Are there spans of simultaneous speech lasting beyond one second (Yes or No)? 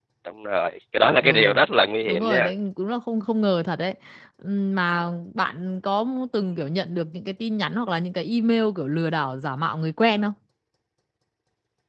No